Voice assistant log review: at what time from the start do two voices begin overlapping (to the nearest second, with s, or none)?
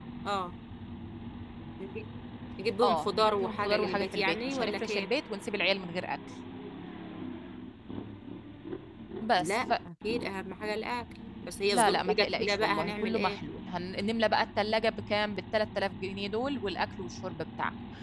3 s